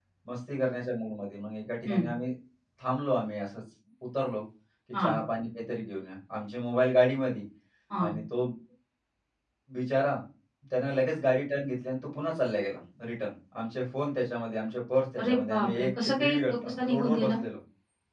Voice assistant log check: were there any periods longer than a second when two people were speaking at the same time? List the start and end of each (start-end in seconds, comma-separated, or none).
15.2-17.3